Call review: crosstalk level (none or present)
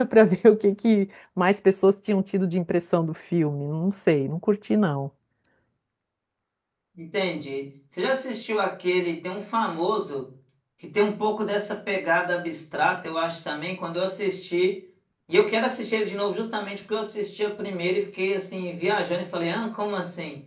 none